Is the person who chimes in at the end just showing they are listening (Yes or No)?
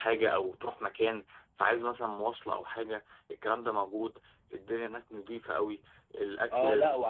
No